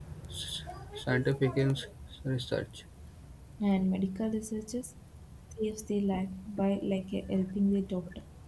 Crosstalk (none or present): none